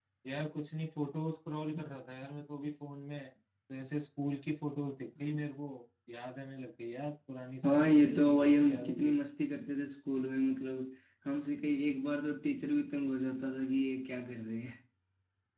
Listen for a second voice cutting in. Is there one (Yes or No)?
Yes